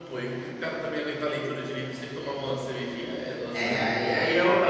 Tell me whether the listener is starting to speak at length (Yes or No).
Yes